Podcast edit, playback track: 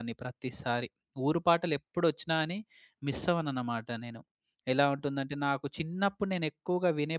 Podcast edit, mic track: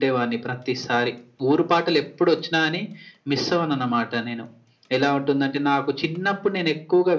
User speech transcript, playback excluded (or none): none